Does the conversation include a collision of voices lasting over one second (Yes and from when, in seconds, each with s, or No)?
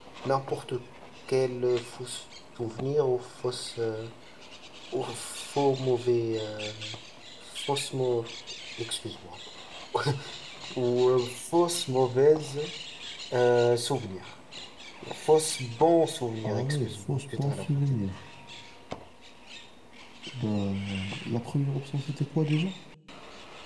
Yes, from 16.4 s